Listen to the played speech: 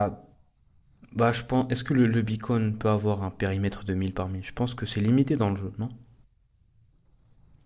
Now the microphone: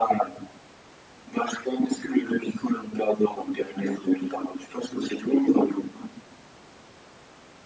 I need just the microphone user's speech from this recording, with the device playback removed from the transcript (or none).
none